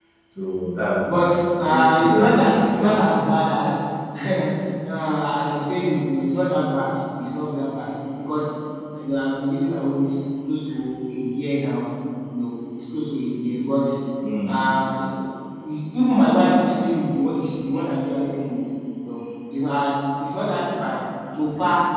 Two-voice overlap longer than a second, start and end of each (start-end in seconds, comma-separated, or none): 1.6-3.2